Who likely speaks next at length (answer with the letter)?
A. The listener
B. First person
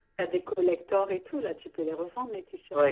A